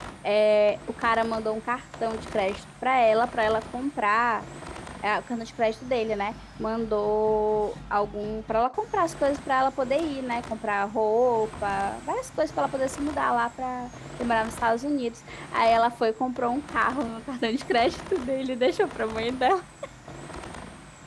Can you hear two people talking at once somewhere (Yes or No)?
No